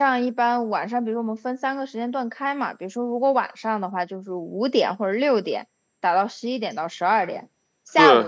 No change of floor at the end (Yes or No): Yes